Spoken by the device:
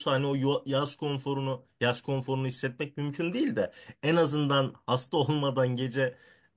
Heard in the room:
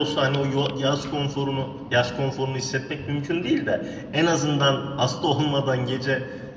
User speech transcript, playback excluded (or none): none